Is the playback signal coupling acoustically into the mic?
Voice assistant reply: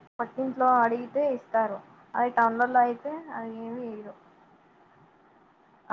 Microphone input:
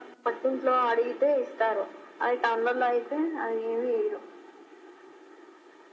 Yes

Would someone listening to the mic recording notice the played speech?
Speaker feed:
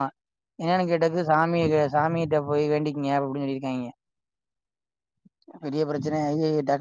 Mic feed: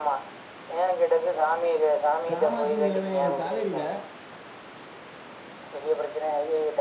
Yes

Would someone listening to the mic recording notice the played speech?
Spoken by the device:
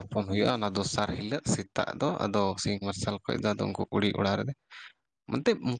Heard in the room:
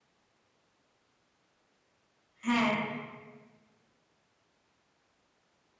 No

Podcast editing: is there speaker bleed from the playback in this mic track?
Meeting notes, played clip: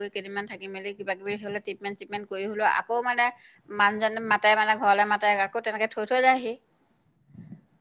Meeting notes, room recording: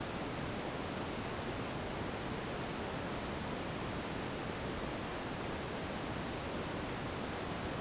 No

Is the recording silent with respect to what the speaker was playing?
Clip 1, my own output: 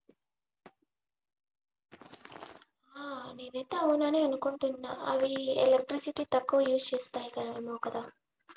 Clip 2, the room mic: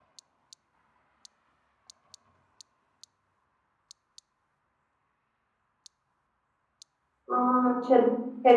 Yes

